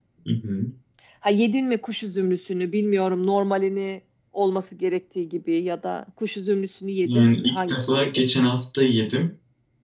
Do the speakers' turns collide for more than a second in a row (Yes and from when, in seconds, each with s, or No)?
Yes, from 7.0 s